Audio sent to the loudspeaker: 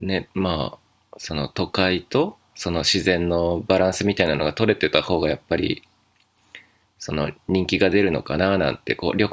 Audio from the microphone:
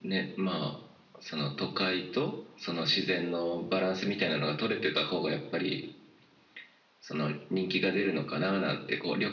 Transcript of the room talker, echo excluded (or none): none